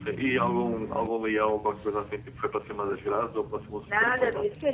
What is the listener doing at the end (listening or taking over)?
taking over